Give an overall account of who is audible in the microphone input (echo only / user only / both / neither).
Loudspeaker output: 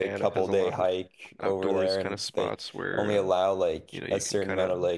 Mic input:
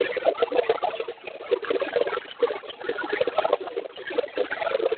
echo only